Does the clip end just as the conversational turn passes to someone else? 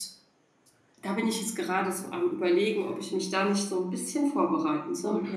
Yes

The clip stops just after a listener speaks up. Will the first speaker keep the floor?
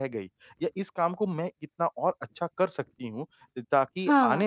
Yes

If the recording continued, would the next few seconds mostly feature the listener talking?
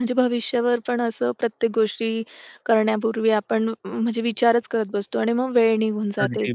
Yes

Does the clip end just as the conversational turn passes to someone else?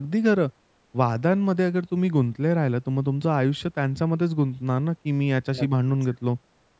No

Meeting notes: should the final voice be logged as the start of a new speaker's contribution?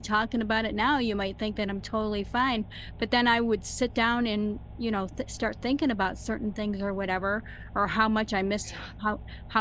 No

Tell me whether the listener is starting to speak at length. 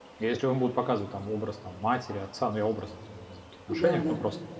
No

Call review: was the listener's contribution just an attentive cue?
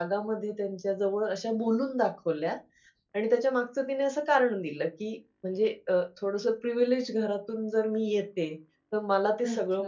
Yes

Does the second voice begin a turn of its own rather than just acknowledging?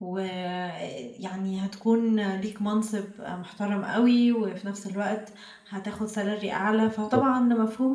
No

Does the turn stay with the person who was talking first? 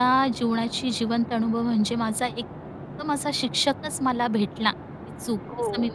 No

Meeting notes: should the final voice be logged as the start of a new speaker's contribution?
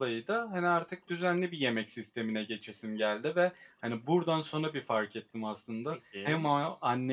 No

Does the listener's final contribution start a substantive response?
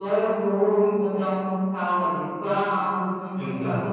No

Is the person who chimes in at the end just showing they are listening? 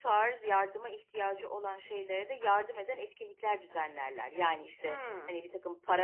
Yes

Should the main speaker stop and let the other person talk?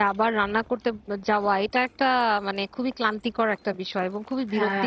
No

